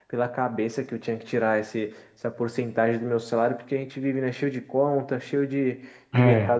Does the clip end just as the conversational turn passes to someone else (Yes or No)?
No